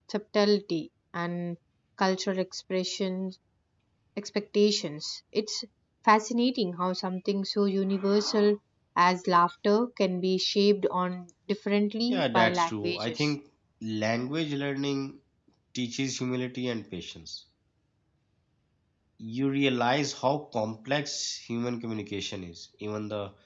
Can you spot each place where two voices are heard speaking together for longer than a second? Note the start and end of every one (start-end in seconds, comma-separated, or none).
12.1-13.3